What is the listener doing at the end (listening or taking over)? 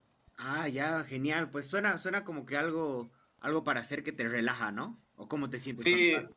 taking over